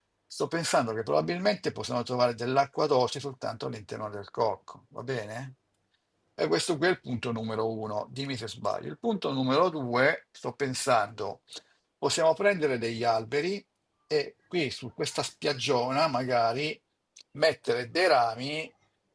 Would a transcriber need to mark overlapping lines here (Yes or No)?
No